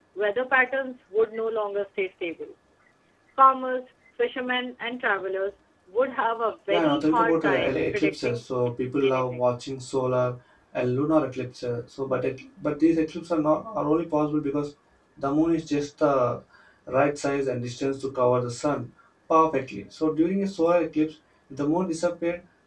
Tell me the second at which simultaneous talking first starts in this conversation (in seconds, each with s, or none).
6.7 s